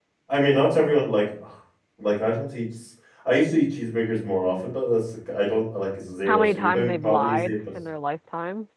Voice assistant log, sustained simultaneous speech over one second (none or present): present